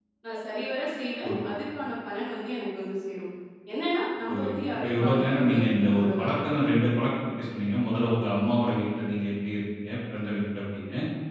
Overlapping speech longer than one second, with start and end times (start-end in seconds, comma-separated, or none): 4.3-6.3